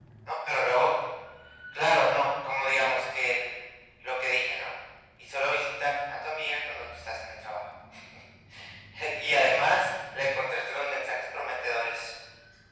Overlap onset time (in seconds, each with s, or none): none